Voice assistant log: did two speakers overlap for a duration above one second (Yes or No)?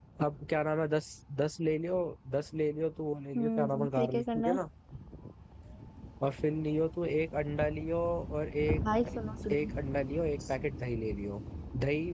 Yes